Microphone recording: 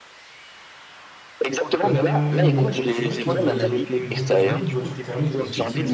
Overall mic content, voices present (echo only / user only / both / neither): both